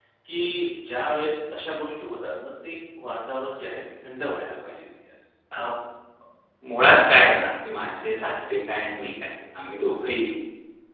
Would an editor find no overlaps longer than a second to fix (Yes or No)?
Yes